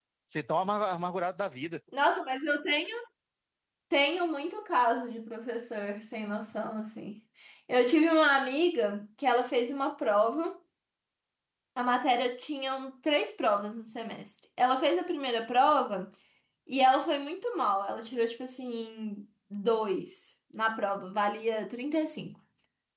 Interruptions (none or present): none